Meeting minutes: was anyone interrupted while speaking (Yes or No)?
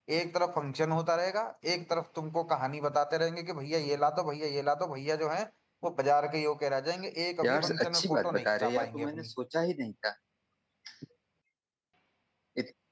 Yes